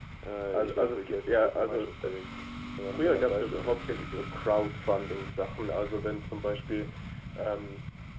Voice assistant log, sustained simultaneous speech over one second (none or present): present